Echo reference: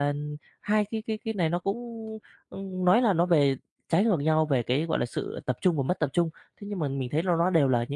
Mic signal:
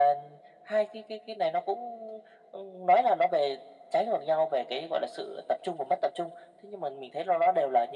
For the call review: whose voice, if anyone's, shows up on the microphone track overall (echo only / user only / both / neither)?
echo only